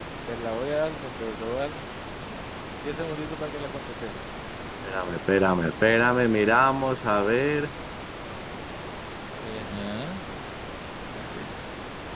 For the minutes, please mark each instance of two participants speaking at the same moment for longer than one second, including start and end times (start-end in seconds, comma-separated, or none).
none